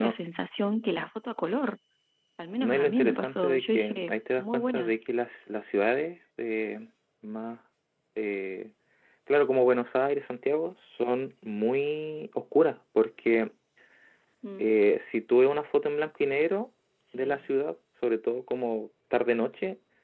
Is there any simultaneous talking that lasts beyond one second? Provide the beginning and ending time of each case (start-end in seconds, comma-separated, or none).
2.6-4.9